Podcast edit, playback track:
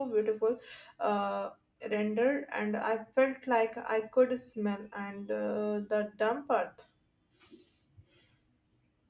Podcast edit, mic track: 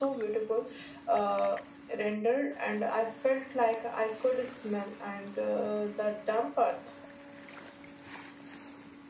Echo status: present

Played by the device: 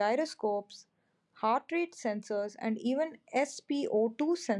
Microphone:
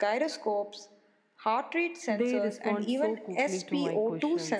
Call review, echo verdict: present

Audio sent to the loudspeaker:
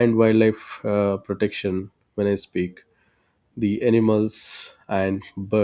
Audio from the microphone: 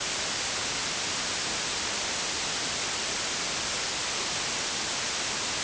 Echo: none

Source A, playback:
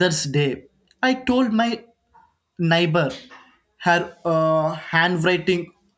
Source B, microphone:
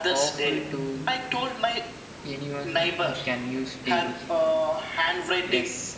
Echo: present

